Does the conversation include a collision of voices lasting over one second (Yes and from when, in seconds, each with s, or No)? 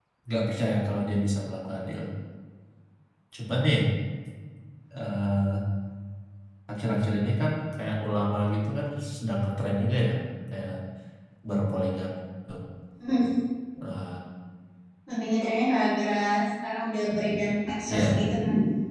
No